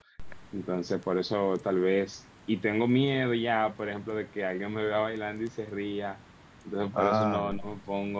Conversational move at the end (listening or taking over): listening